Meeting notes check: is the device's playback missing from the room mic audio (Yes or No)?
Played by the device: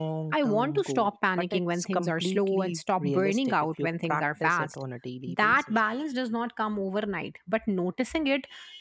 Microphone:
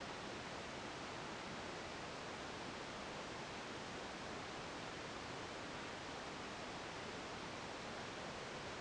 Yes